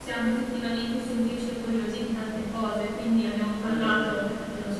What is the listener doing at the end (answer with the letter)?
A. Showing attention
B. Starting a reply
A